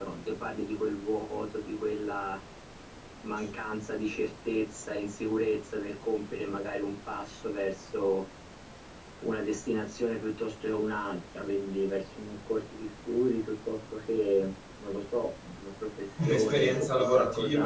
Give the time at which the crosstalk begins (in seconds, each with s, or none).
16.2 s